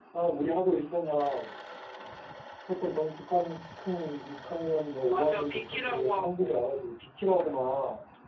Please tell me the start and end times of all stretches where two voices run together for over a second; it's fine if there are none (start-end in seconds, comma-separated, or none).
5.0-6.6